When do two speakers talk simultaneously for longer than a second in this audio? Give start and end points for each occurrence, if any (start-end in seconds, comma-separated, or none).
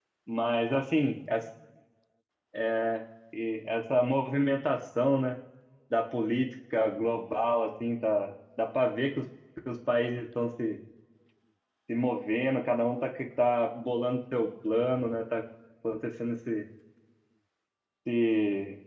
none